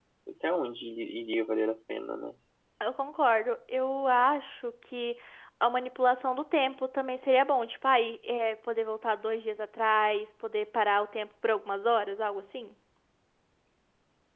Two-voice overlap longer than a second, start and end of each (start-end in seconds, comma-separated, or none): none